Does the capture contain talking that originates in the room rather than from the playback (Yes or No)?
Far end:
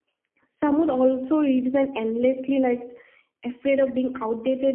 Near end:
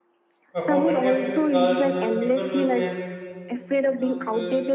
Yes